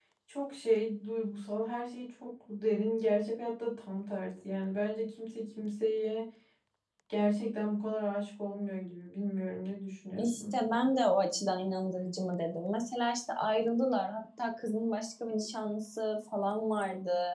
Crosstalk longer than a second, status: none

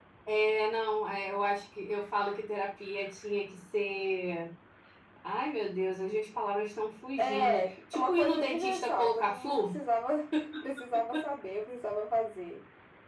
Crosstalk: present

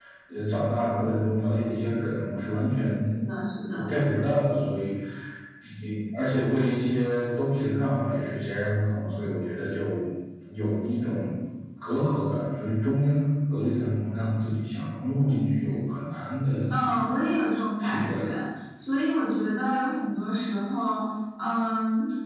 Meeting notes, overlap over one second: none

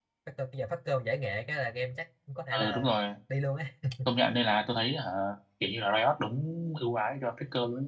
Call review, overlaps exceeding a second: none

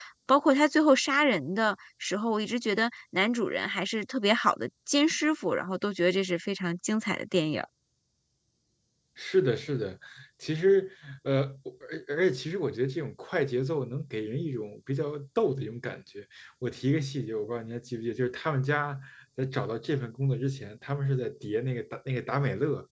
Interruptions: none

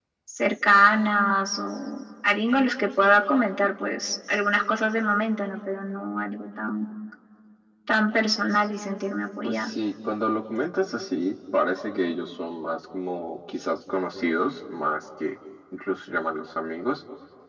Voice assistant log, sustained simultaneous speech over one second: none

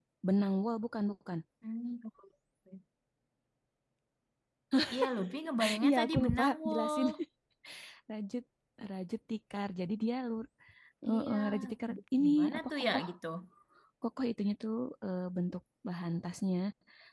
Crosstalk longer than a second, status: present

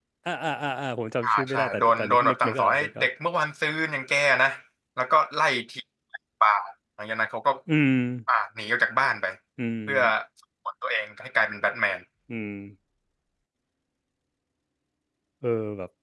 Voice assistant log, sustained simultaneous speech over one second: present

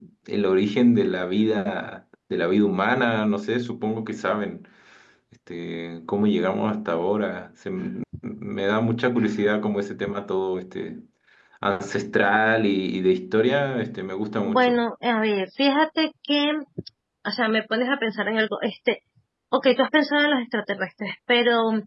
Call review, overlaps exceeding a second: none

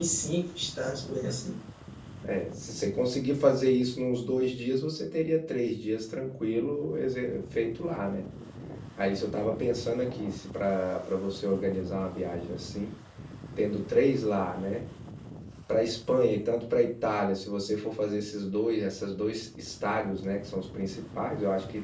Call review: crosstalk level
none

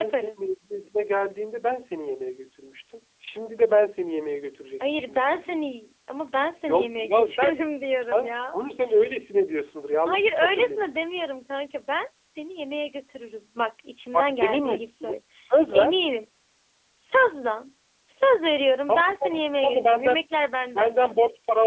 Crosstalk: present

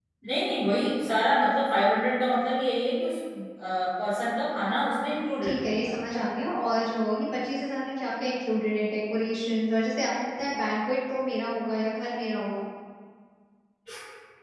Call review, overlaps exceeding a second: none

